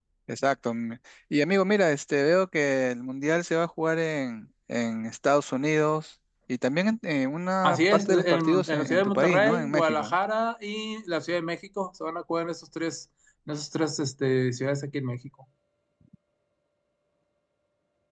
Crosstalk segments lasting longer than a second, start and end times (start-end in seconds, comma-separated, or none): 7.6-10.1